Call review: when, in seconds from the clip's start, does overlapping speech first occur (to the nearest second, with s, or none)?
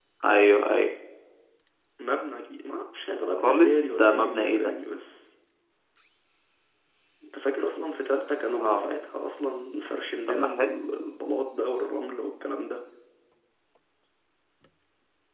3 s